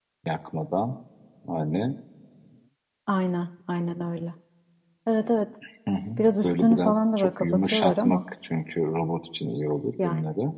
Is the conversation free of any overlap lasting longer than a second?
No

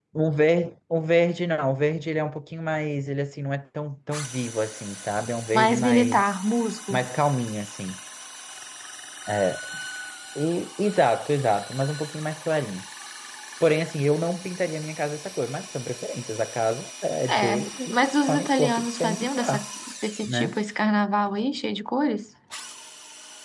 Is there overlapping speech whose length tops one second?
Yes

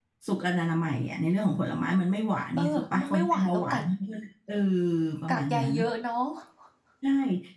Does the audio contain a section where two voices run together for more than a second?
Yes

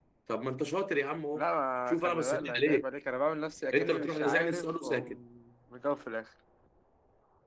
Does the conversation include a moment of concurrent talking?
Yes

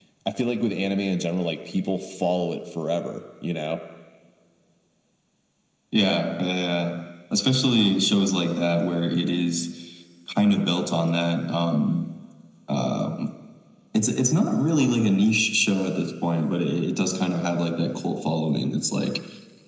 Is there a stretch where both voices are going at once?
No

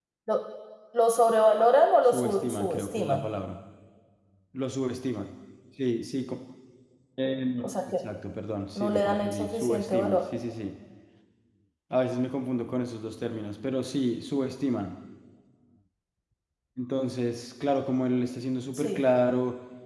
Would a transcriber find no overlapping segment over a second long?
No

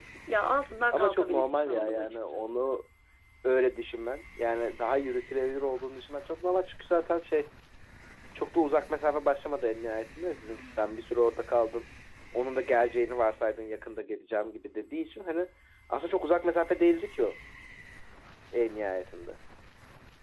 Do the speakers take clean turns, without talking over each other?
No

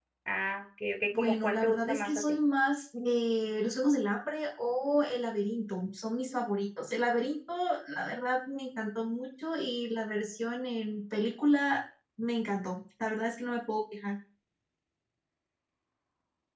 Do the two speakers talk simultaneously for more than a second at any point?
Yes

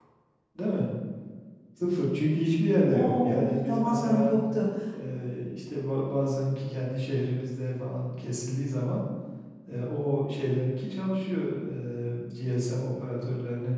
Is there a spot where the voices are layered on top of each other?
Yes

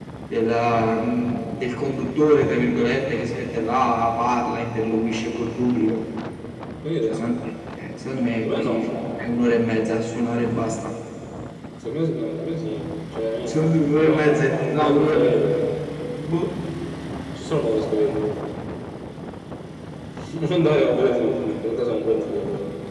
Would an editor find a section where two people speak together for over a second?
Yes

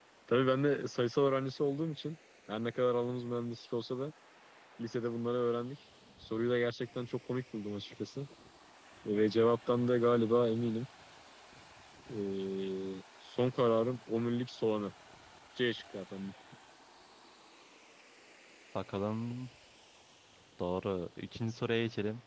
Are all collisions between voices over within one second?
Yes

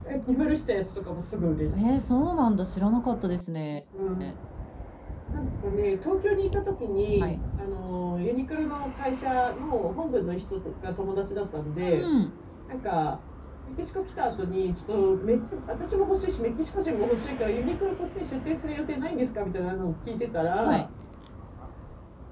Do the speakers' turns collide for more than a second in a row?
No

